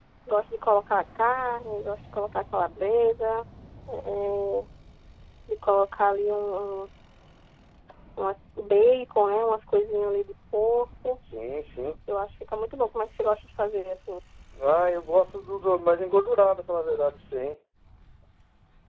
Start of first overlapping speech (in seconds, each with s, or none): none